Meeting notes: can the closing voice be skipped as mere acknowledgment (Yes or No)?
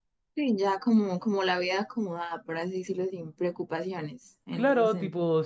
No